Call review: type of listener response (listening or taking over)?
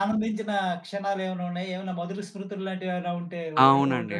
taking over